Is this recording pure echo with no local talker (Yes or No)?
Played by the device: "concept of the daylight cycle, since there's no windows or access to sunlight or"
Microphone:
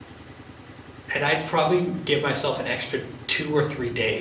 No